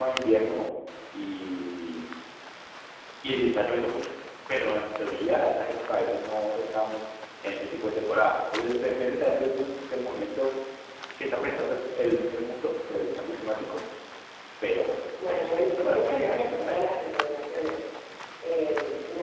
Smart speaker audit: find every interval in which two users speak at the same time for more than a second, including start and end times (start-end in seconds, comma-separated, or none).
15.3-16.8